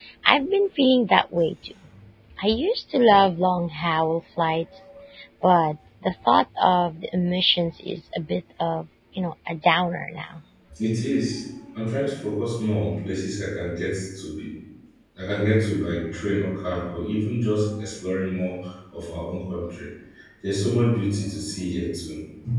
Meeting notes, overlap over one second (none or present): none